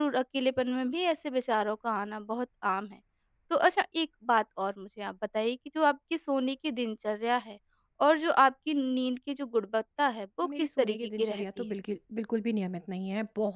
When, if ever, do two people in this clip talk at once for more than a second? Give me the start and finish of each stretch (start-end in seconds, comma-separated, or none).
10.4-11.6